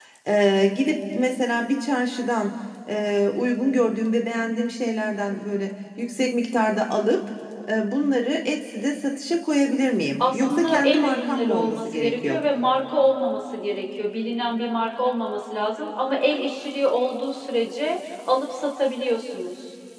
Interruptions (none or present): present